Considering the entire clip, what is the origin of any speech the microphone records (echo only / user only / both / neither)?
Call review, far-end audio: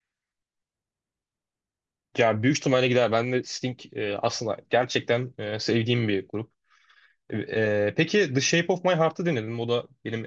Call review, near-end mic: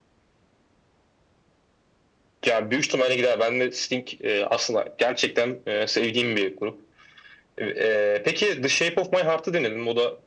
echo only